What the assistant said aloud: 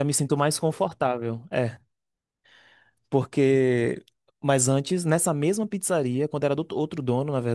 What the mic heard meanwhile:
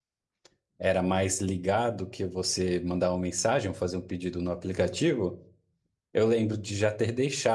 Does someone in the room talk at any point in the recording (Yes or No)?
Yes